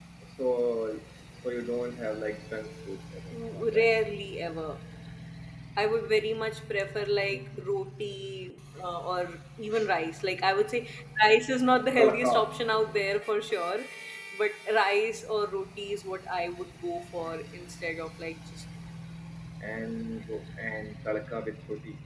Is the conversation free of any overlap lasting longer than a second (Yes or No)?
Yes